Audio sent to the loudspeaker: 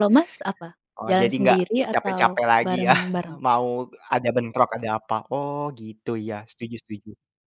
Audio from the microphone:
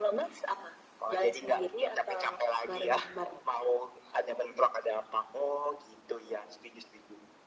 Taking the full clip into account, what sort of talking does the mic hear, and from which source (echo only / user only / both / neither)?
echo only